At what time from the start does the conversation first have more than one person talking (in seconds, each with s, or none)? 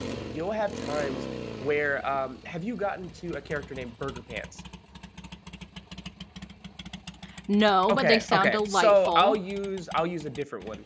7.9 s